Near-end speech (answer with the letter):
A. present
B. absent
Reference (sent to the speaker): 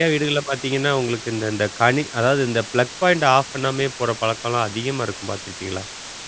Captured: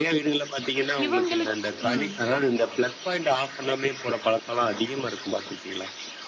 A